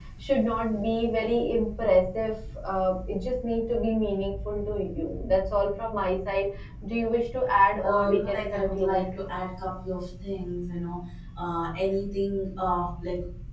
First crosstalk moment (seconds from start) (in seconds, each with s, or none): 7.8 s